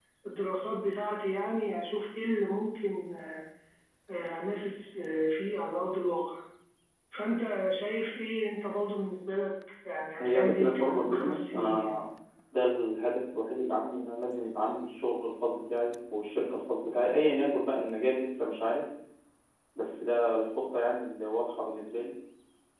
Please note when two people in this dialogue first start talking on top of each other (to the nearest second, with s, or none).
10 s